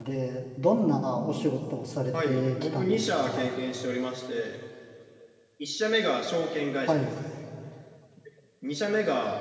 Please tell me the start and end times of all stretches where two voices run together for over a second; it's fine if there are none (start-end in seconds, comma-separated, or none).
2.2-3.5